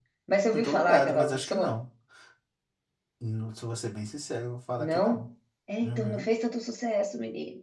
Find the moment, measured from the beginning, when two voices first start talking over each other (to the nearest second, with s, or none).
1 s